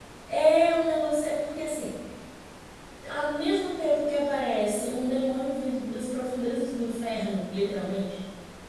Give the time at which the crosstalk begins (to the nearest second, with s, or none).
none